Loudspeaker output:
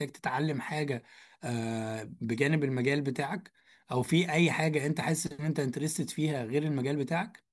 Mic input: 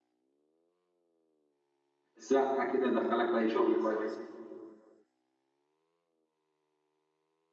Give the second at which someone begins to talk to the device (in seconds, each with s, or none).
2.2 s